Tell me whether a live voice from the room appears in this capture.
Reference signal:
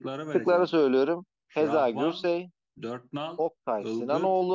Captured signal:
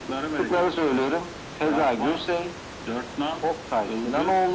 No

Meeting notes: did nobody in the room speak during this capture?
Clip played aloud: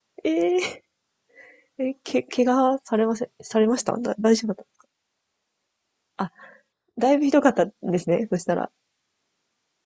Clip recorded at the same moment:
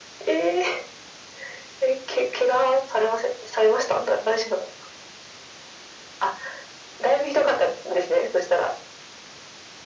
Yes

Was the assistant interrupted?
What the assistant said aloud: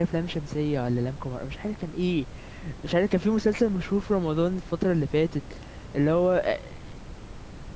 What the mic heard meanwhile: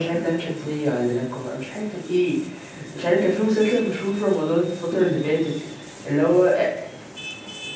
No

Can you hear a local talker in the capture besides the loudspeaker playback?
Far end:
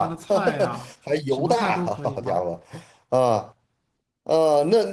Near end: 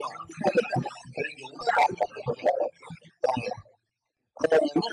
No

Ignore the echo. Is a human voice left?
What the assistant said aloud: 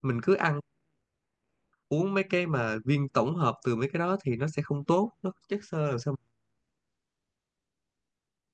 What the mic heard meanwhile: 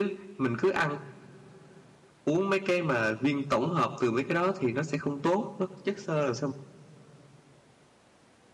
No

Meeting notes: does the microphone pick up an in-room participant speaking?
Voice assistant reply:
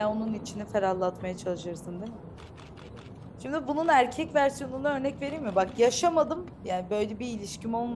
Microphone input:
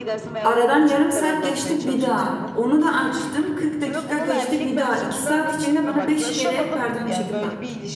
Yes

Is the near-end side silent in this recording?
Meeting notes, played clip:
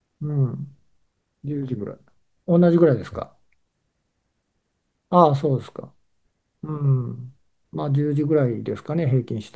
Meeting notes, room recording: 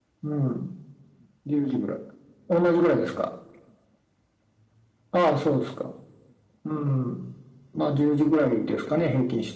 Yes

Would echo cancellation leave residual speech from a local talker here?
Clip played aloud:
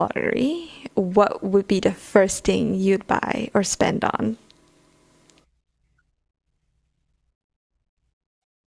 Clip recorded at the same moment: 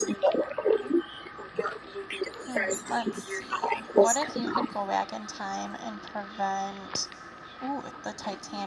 Yes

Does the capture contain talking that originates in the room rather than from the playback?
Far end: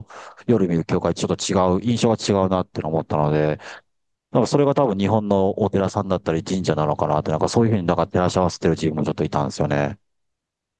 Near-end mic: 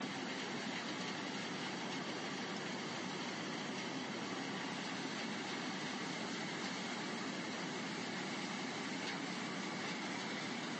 No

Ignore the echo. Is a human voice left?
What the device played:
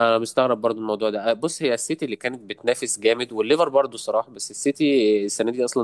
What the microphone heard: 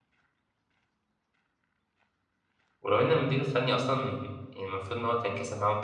Yes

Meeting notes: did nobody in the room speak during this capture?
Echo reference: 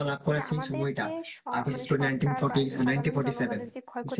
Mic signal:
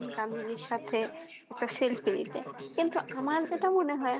No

